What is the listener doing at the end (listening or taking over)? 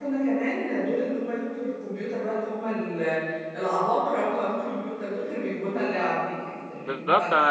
taking over